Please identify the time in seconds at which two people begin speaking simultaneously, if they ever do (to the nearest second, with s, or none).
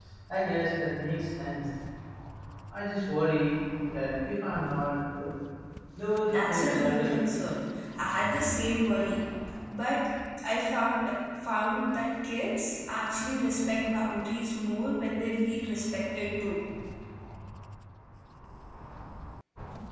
6 s